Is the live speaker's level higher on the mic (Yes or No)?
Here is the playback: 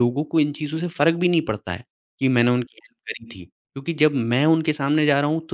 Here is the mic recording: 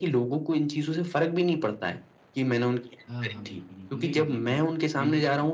No